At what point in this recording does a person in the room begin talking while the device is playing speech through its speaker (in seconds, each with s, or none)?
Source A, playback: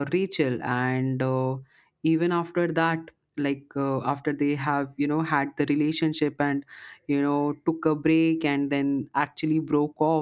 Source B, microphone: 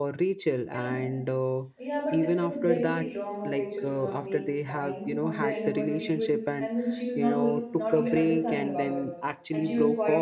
0.7 s